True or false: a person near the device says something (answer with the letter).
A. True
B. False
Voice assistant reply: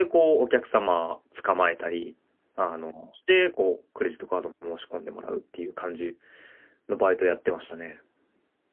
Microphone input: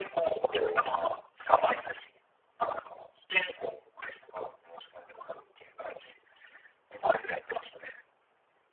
A